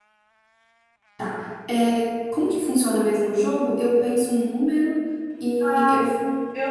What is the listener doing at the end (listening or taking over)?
taking over